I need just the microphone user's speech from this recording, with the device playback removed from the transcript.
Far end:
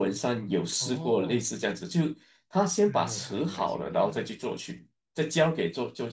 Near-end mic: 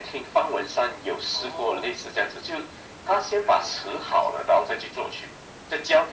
none

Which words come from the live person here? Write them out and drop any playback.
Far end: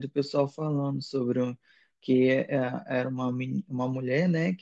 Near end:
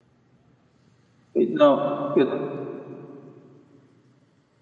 Não, eu,

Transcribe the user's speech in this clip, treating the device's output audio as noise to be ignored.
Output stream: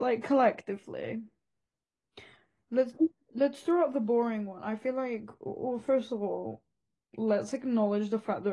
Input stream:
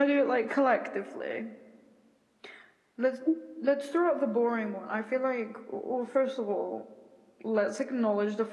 none

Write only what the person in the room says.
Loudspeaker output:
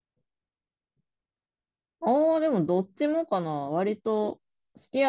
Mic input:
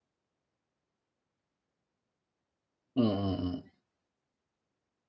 うんうん

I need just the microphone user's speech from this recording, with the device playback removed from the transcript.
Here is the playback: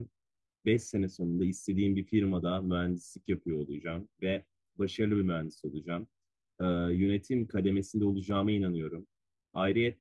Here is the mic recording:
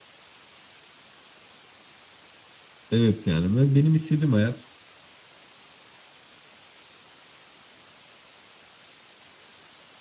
Evet yani ben, benim istediğim hayat

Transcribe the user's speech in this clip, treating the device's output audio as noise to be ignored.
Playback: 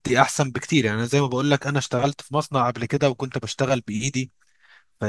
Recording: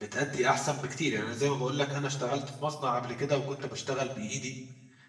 none

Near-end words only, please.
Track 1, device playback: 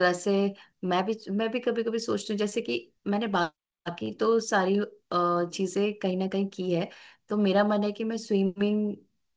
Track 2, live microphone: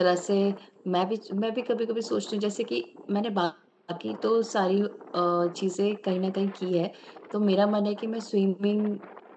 none

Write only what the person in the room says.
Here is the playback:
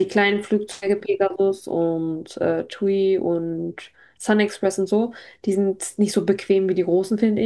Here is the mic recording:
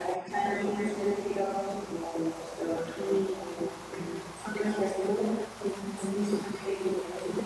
none

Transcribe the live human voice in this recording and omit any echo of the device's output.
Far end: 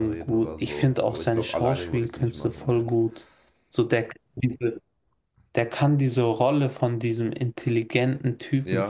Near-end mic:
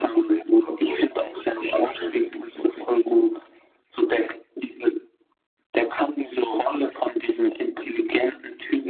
none

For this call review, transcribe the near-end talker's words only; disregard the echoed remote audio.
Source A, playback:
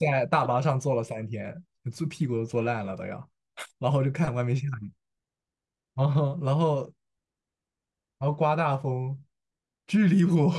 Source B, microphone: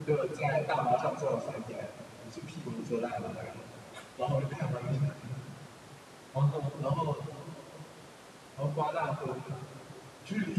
none

